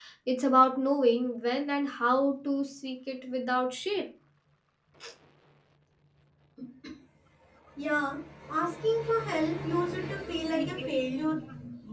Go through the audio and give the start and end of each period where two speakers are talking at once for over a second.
none

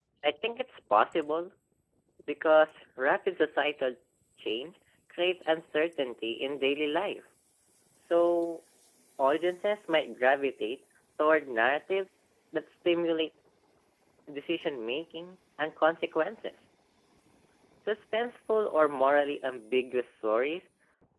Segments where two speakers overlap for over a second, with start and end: none

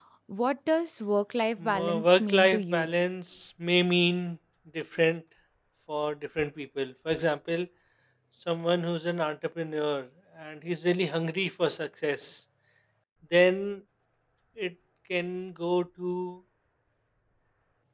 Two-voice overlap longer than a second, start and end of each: 1.6-2.9

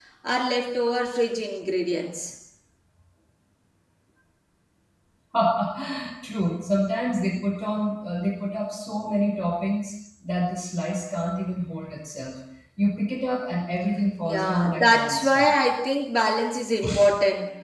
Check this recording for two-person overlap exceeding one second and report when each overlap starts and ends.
14.2-15.5

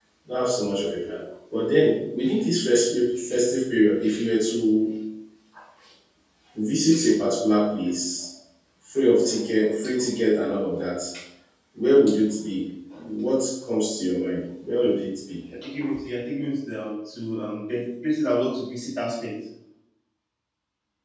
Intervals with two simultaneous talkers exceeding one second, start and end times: none

